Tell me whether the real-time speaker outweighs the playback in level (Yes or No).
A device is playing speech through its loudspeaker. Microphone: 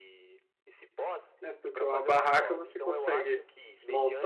Yes